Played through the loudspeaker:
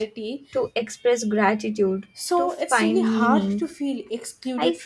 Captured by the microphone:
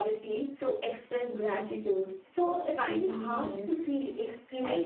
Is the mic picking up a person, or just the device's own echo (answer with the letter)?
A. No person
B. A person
A